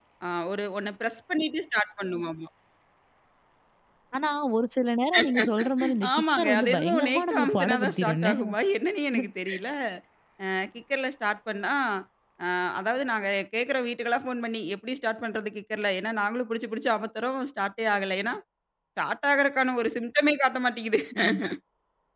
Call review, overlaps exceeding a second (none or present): present